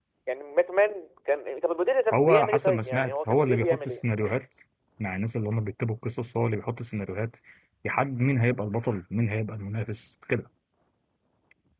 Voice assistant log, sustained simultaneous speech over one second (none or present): present